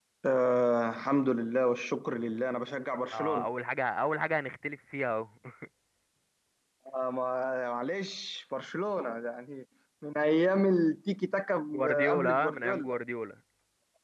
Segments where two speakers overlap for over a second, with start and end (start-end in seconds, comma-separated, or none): 11.7-13.0